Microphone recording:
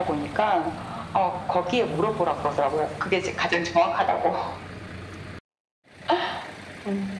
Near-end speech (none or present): none